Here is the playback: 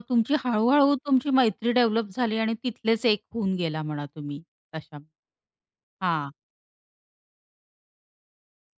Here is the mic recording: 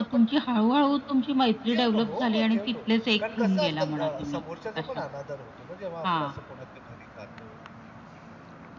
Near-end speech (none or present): present